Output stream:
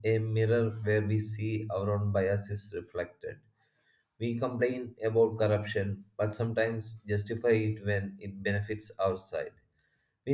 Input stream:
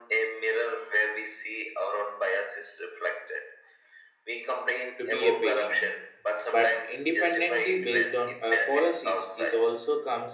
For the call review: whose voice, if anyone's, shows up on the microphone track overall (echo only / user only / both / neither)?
both